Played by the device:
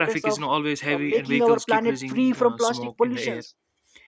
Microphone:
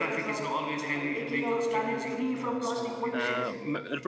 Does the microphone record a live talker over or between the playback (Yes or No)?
Yes